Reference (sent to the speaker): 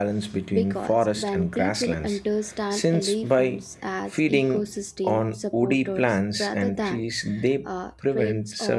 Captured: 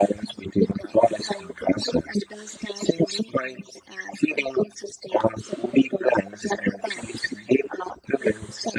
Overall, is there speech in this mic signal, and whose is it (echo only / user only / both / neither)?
echo only